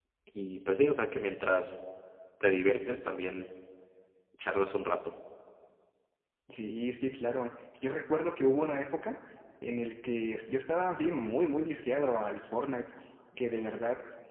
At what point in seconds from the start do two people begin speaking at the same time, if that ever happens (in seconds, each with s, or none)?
none